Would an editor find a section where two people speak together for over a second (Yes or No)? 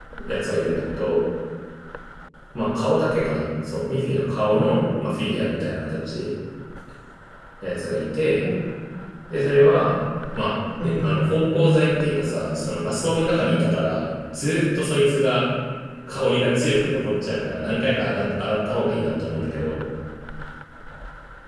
Yes